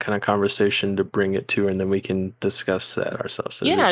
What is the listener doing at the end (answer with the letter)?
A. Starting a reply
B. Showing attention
A